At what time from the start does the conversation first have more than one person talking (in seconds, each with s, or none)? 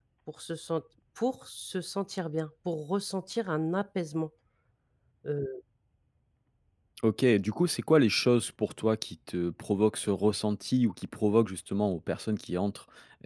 none